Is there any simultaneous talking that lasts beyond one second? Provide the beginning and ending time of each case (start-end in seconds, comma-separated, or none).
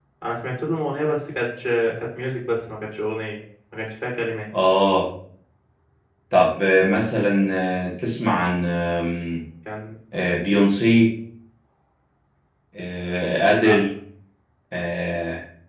none